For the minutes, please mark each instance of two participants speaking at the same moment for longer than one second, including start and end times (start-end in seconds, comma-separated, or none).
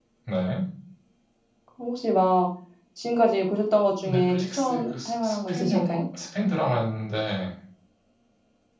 4.0-6.0